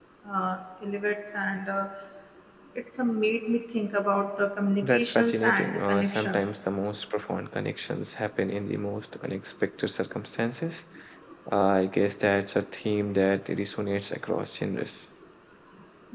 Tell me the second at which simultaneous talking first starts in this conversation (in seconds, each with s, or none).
4.8 s